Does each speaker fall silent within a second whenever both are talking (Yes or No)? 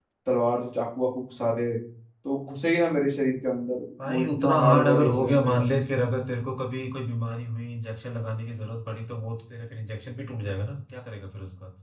No